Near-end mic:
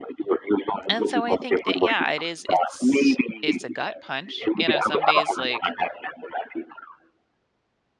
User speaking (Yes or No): Yes